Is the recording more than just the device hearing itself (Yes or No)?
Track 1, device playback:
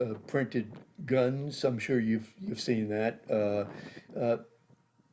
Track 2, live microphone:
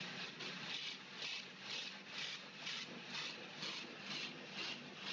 No